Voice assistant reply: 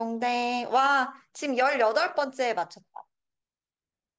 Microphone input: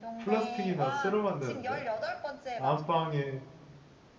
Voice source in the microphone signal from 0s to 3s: both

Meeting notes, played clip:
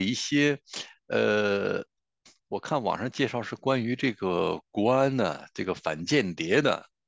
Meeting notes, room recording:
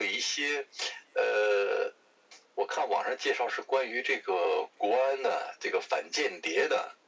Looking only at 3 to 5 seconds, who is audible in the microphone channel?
echo only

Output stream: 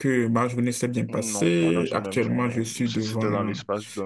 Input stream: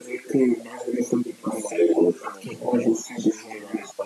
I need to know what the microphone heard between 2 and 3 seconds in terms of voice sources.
echo only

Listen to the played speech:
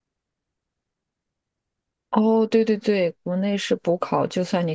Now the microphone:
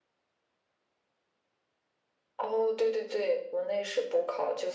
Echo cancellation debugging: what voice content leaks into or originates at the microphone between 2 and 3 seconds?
echo only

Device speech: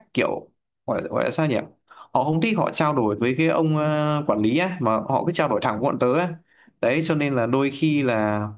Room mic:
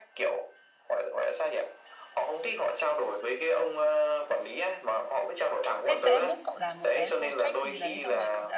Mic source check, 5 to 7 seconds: both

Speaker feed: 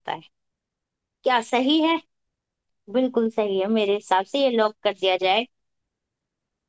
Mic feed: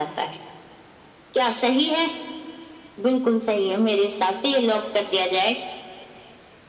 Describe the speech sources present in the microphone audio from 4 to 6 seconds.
echo only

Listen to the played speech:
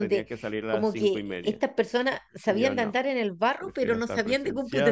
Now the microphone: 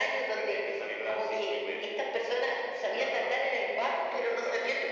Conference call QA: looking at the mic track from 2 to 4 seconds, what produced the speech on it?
echo only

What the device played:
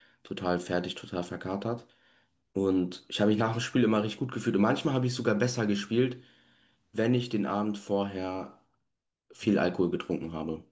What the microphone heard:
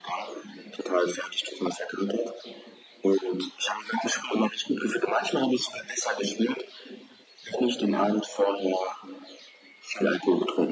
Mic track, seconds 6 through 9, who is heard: echo only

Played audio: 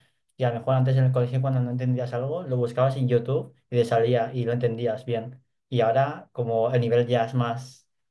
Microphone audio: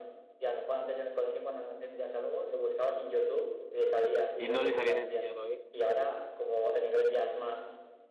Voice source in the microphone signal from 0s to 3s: echo only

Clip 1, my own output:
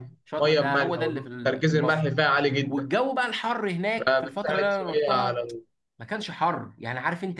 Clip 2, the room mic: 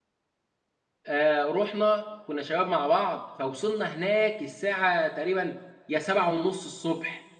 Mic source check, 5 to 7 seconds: user only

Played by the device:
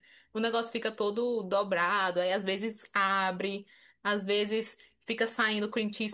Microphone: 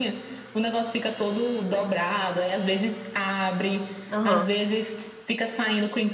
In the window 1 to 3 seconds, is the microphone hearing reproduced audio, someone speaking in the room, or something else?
echo only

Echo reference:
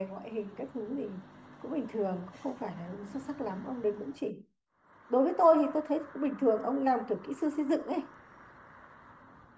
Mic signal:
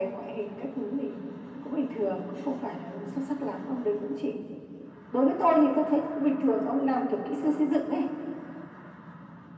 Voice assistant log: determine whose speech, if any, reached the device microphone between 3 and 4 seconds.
echo only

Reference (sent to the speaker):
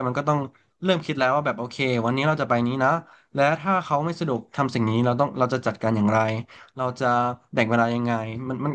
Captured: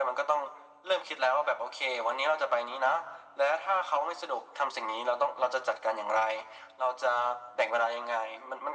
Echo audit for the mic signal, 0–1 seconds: echo only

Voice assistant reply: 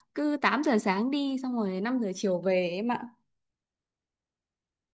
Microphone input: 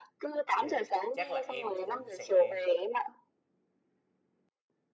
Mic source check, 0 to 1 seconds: both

